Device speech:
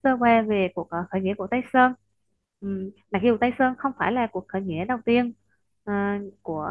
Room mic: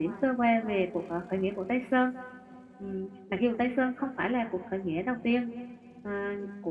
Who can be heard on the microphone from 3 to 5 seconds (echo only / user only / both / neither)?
echo only